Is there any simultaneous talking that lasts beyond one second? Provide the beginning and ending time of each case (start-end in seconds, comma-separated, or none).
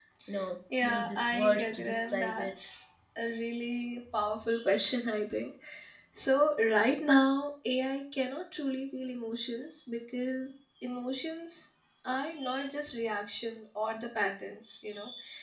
0.8-2.5